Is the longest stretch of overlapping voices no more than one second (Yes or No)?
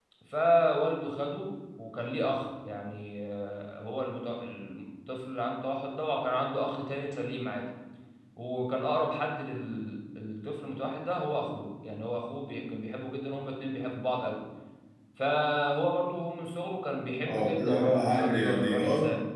No